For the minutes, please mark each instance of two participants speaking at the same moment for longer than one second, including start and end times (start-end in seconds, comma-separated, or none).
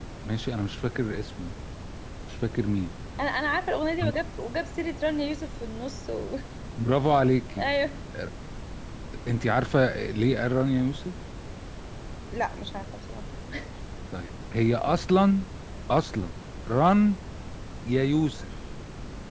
none